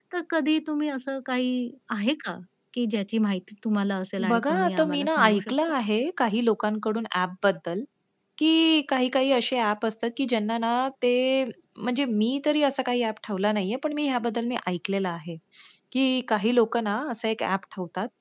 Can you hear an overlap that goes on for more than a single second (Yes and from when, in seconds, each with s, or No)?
Yes, from 4.2 s